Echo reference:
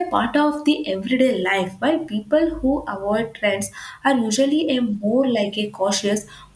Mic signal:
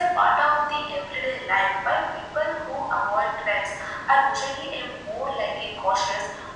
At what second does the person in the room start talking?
none

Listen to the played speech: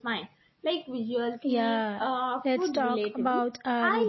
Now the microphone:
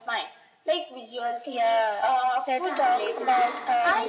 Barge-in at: 2.6 s

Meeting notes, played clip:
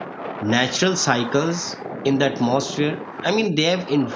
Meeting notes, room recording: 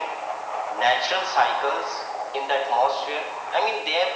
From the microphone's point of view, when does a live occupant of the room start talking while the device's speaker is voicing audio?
none

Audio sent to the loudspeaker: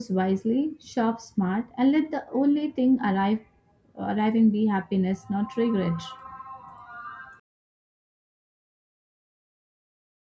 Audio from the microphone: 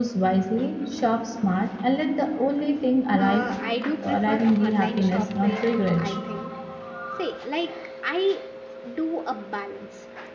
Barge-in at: 3.2 s

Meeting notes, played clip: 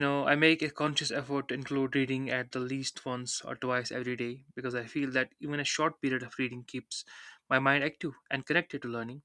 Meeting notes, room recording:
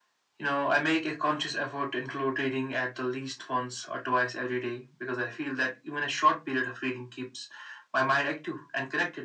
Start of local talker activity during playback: none

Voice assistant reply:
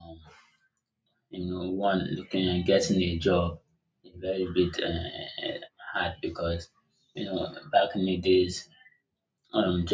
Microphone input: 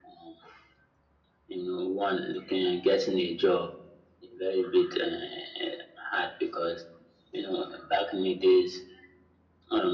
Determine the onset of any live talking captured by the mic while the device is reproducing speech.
none

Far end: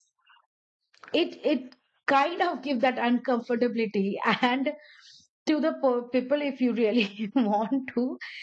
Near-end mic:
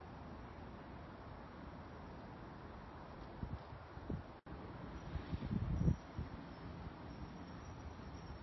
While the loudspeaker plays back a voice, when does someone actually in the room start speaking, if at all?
none

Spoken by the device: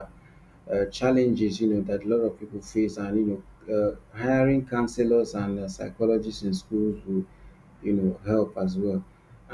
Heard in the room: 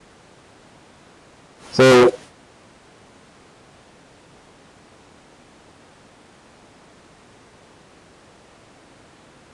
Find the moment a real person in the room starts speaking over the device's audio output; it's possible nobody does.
1.7 s

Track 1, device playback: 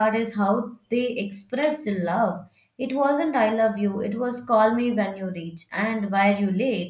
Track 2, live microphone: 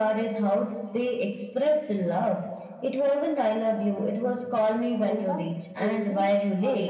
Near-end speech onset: 5.0 s

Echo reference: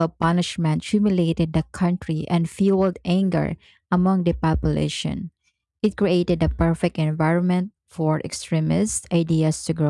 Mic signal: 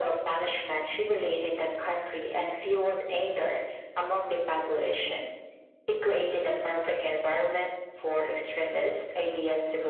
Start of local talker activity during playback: none

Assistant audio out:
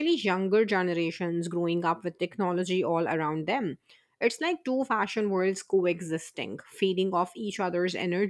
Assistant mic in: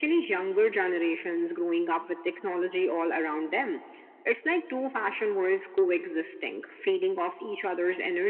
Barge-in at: none

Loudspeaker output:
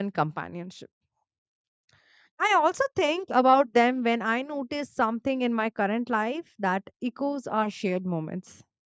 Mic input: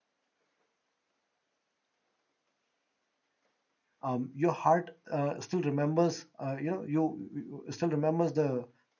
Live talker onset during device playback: 4.0 s

